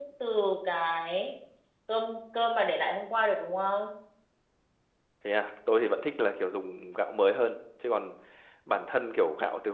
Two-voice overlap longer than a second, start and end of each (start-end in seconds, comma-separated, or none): none